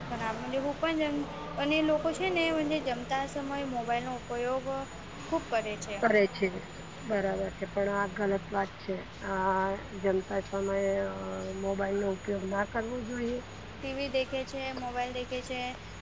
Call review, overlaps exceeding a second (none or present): none